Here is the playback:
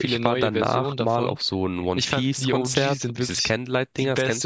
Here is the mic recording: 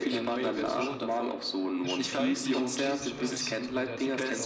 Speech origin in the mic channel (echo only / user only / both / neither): both